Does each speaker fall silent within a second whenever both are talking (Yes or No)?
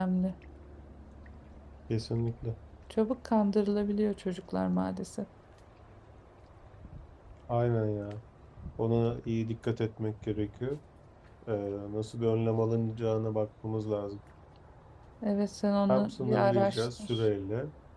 No